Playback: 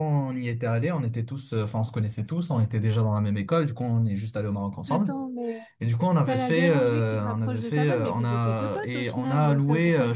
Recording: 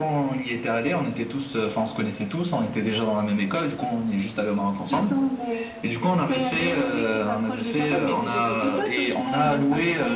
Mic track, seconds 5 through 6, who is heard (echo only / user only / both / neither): echo only